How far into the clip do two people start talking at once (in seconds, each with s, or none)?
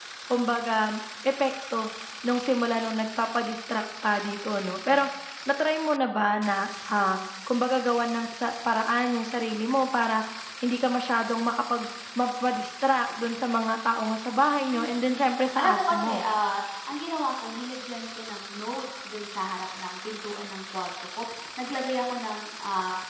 14.7 s